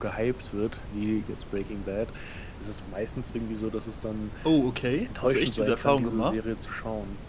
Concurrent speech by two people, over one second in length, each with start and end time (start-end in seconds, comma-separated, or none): 5.0-6.4